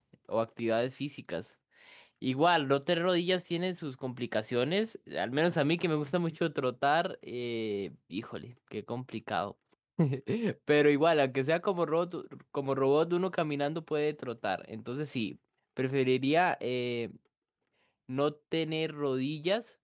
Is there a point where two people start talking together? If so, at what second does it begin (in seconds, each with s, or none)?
none